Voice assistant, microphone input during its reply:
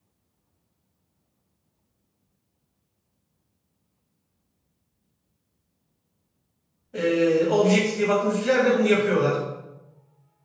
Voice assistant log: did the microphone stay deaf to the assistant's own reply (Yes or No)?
Yes